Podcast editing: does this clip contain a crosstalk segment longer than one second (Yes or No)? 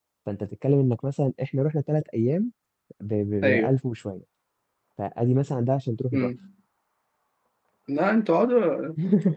No